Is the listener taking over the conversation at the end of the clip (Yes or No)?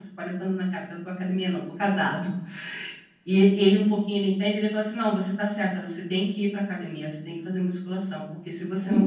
Yes